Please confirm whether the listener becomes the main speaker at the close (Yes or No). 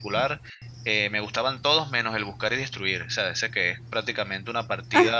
Yes